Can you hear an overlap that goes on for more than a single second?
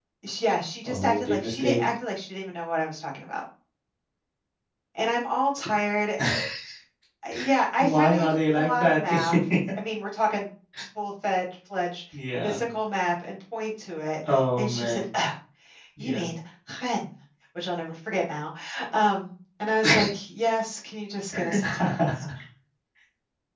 Yes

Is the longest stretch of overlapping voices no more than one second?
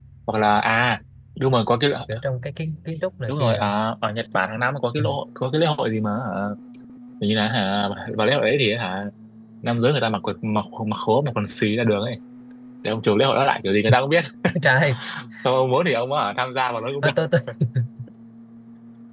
Yes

